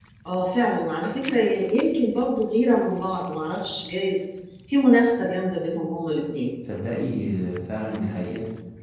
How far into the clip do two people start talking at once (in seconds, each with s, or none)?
none